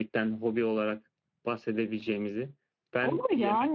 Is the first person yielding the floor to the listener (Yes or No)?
Yes